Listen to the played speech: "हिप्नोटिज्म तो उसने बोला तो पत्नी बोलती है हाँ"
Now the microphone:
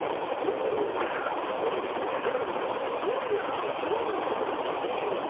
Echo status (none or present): none